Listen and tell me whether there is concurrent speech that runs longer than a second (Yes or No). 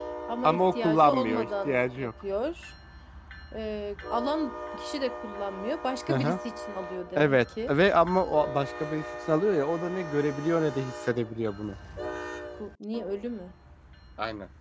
Yes